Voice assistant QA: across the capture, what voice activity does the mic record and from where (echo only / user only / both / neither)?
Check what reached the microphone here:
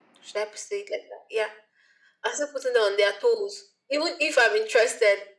echo only